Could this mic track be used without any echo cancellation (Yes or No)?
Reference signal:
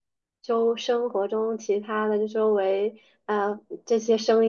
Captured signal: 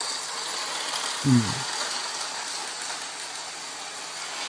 Yes